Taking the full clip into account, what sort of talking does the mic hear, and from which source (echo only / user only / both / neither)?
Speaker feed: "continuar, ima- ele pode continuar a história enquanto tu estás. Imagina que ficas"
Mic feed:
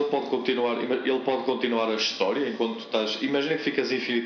echo only